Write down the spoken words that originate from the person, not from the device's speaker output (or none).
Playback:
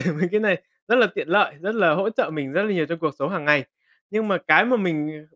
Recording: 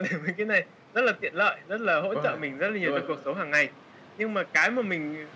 Vâng, chuẩn luôn!